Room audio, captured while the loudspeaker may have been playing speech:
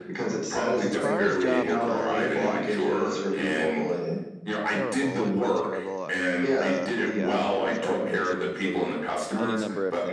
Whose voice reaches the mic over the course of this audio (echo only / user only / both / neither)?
both